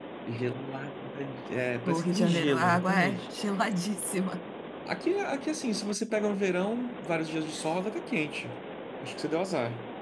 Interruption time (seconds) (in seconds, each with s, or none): 1.8 s